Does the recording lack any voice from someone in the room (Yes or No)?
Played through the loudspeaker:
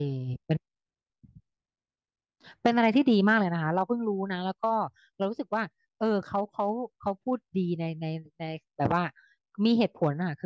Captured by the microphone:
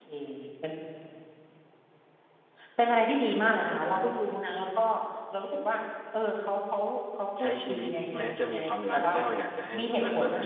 No